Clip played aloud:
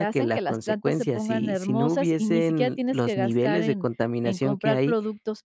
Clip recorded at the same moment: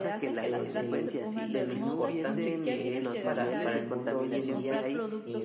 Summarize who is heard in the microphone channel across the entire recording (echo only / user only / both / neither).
both